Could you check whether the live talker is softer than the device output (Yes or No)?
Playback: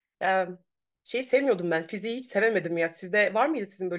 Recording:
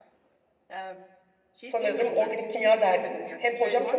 No